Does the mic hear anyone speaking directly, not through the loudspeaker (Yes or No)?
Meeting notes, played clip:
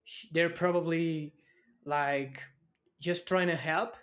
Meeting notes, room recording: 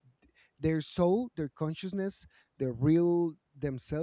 Yes